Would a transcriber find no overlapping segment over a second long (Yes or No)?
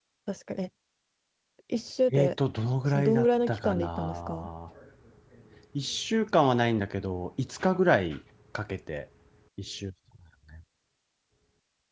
No